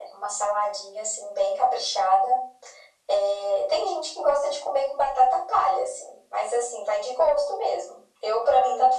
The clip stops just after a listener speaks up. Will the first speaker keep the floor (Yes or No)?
Yes